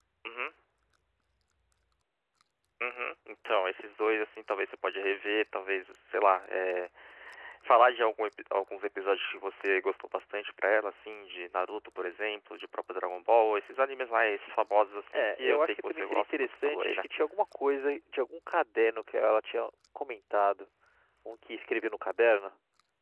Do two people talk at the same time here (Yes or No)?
Yes